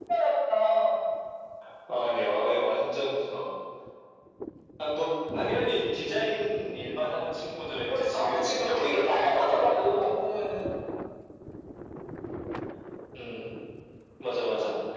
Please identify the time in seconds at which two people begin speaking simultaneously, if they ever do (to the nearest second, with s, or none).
8 s